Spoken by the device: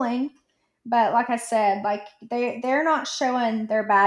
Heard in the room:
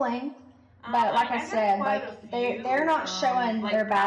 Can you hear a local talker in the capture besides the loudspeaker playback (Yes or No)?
Yes